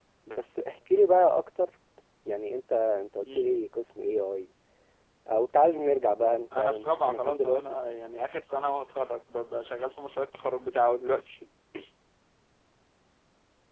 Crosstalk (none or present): present